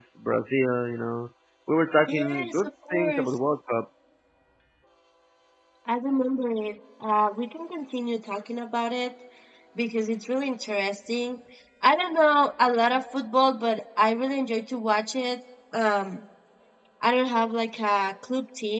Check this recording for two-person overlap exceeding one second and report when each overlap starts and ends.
2.1-3.3

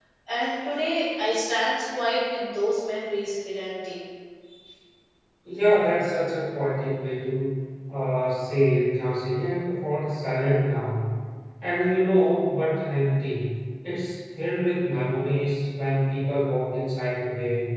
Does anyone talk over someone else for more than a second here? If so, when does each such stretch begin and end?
none

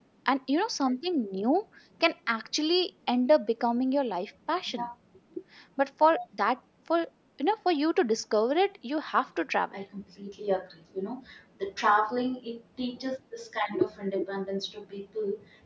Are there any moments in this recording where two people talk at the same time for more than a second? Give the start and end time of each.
none

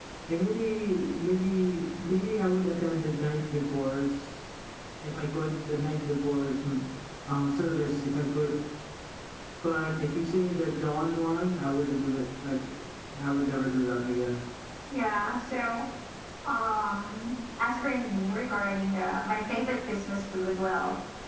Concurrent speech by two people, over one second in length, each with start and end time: none

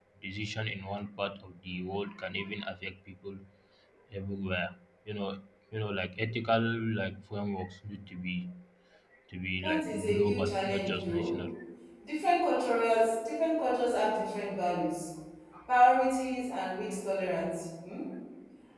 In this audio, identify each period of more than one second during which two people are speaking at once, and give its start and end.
9.6-11.3

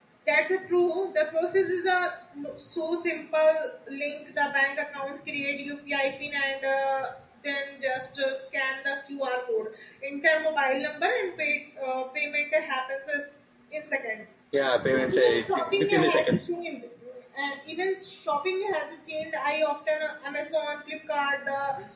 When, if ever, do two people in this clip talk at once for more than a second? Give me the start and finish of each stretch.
14.9-16.4

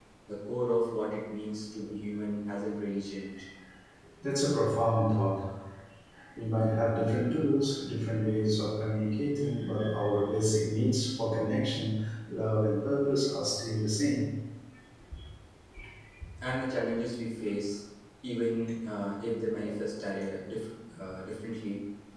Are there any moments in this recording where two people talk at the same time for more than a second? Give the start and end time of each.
none

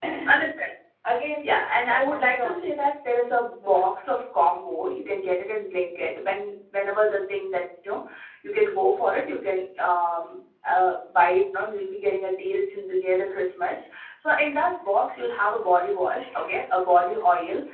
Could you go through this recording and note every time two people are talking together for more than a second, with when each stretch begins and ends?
1.4-2.8

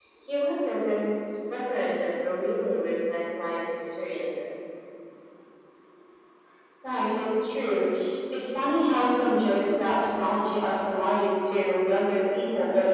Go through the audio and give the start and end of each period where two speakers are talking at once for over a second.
none

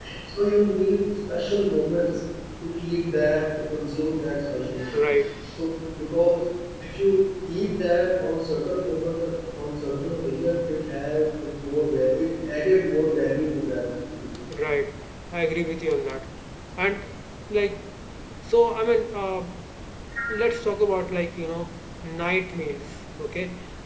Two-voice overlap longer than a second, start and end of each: none

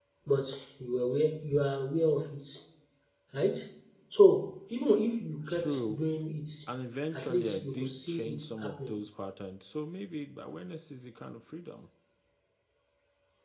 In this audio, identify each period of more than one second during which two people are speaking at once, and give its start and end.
7.1-9.0

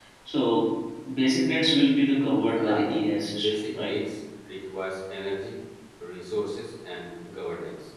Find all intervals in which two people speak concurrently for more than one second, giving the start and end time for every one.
2.5-3.9

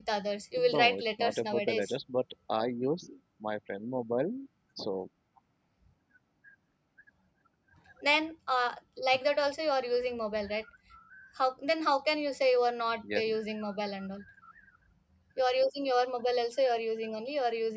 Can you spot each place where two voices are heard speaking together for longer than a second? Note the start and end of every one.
0.6-1.9

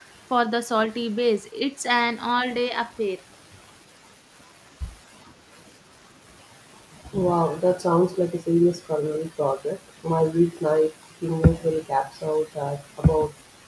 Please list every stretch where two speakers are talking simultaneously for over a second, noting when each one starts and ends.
none

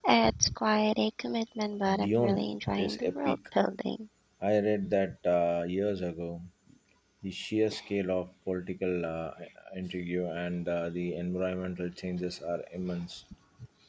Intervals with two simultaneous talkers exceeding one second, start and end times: 2.0-3.4

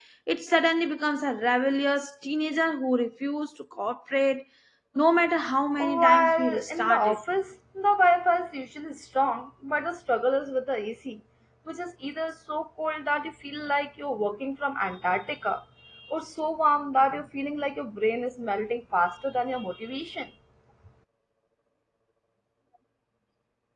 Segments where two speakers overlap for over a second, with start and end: 5.8-7.2

